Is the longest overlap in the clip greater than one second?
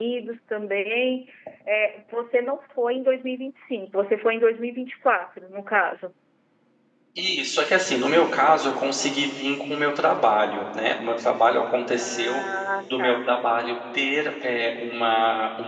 No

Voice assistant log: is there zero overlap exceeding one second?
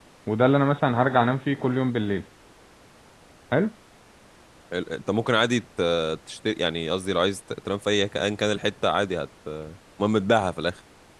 Yes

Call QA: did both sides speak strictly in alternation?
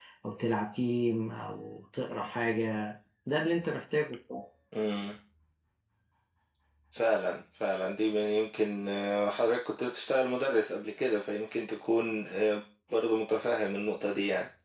Yes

